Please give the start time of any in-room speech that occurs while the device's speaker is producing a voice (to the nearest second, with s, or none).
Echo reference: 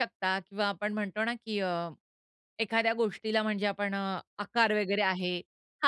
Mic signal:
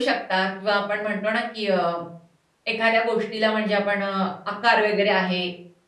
none